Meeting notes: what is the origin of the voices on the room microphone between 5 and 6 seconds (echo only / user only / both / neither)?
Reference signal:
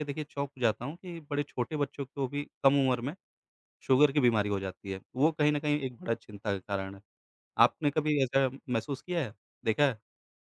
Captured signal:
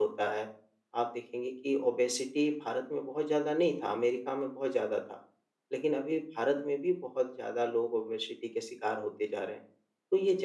user only